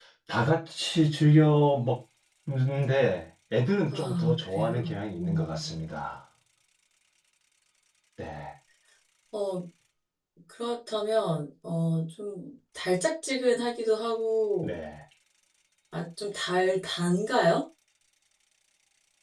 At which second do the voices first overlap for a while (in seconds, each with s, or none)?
3.9 s